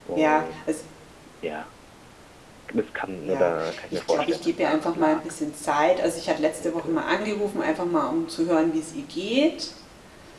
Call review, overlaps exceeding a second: present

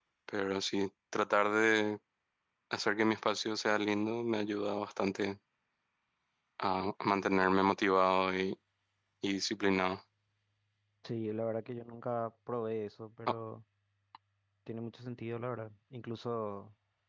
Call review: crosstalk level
none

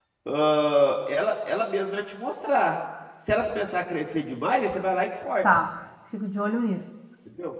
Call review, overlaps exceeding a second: none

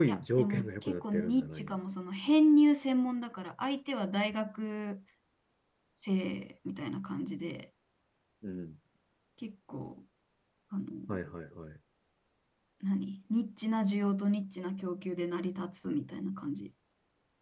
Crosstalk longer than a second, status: present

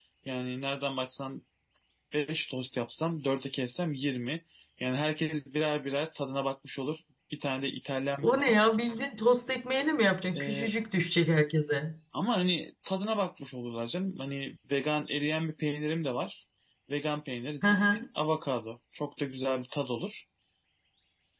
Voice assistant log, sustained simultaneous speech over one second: none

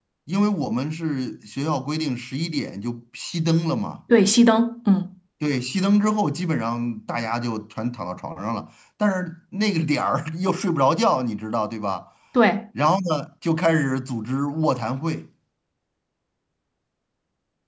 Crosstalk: none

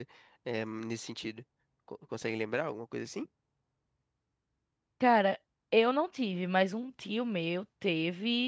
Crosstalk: none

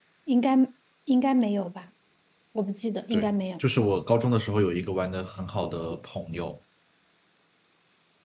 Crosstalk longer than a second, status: none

